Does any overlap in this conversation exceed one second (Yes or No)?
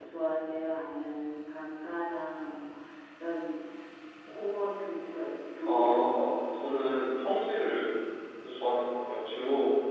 Yes